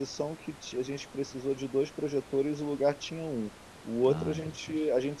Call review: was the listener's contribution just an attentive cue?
Yes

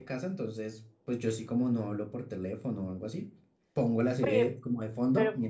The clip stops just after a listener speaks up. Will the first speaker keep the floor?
No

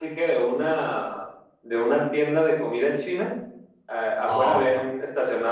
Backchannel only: Yes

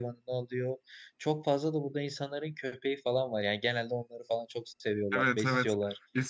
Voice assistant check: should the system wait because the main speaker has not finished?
No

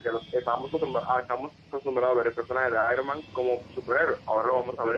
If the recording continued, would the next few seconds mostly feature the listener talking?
No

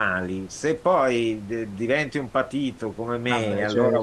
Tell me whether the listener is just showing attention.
Yes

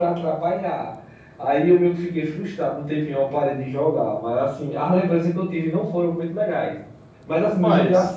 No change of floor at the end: Yes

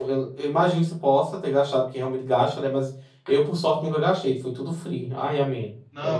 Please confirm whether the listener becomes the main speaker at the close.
Yes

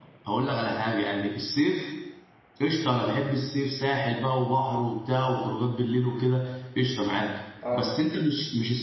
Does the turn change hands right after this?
No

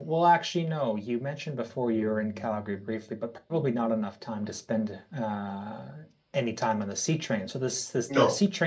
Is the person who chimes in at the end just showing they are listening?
Yes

